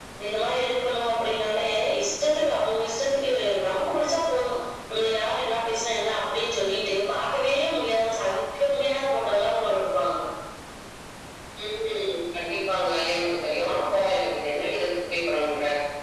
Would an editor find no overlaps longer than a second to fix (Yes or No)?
Yes